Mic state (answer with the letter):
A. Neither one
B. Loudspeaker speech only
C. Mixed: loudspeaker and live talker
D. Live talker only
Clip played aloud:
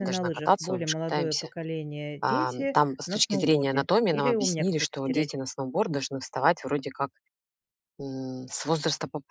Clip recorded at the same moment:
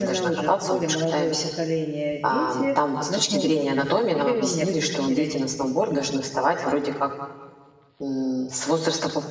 B